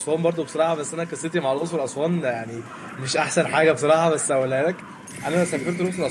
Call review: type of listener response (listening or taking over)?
listening